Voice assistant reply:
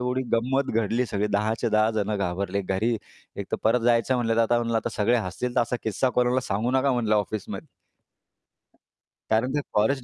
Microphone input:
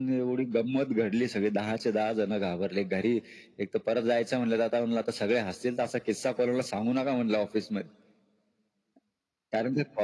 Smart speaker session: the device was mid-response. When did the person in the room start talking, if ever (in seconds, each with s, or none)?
none